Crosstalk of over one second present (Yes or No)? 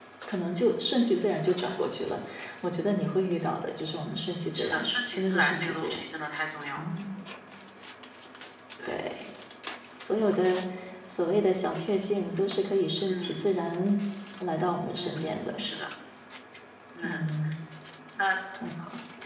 Yes